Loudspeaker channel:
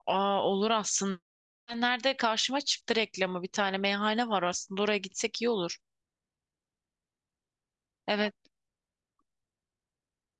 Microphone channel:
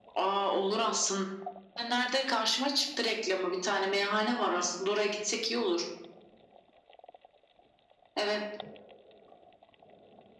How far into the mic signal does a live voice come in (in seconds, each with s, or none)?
none